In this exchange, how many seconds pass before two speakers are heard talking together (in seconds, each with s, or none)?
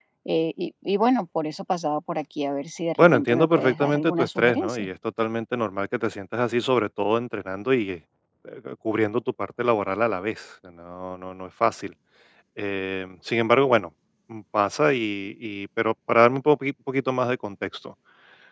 3.0 s